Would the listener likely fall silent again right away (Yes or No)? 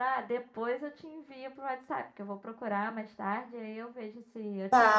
No